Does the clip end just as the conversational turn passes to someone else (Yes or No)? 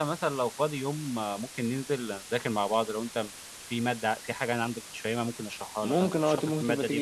Yes